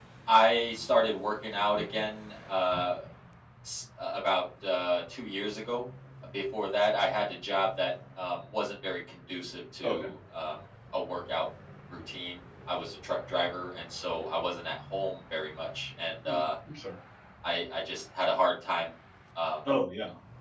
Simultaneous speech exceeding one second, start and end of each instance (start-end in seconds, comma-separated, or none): none